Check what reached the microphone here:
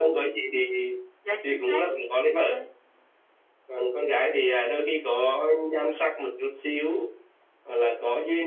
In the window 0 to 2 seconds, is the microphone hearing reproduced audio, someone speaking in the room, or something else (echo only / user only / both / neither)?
both